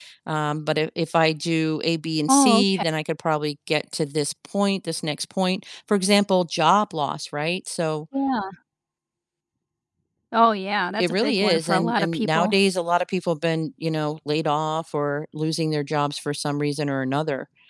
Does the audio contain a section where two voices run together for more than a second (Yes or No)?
Yes